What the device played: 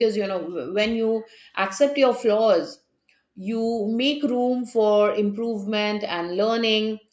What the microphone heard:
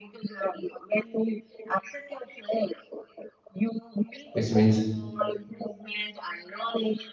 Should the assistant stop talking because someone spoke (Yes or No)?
Yes